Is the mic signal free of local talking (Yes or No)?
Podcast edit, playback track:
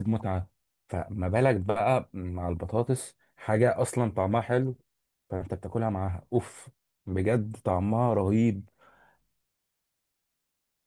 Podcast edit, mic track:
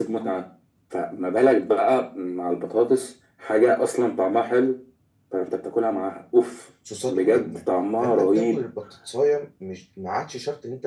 No